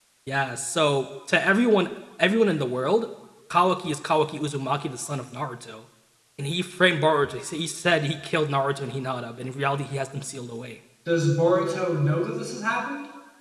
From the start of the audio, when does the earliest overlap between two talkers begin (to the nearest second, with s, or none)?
none